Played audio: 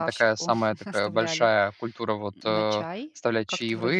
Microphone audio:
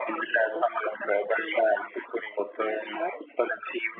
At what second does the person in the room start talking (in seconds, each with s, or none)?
none